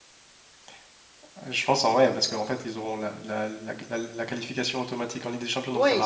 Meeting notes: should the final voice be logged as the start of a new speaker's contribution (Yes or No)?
Yes